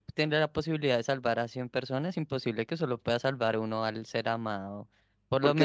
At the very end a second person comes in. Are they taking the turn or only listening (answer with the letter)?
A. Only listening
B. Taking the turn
B